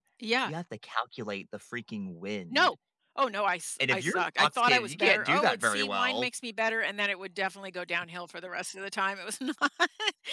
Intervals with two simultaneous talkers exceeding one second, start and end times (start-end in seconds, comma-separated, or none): 3.9-6.3